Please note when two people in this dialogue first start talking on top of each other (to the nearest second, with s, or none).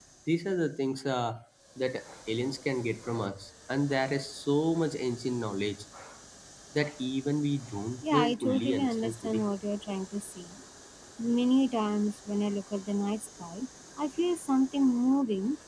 8 s